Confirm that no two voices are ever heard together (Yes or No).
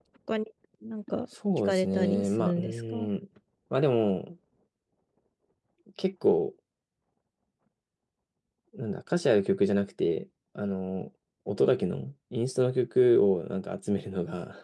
No